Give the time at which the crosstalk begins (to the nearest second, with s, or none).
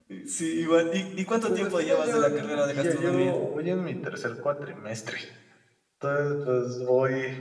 1 s